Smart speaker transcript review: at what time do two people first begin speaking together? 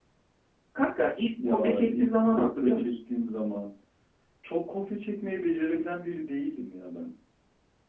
1 s

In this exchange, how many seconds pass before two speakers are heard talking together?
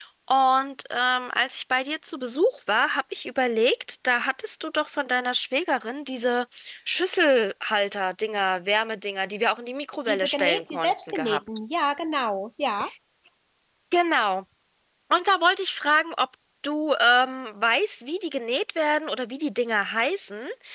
10 s

